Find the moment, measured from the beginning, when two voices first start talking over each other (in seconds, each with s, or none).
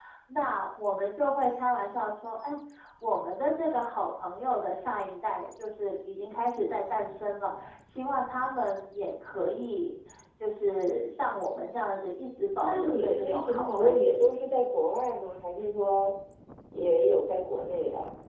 12.6 s